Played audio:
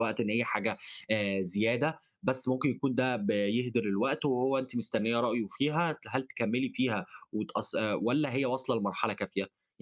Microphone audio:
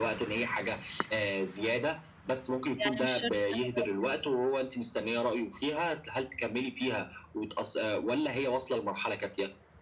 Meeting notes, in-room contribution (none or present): present